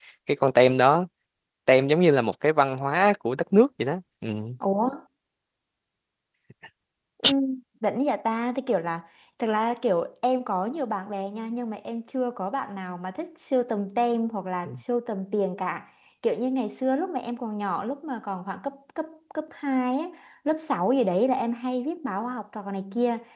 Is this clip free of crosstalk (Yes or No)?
Yes